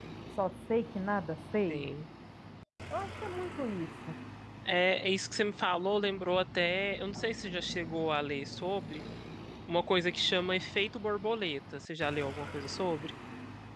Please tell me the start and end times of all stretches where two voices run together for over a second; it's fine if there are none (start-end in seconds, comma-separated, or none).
none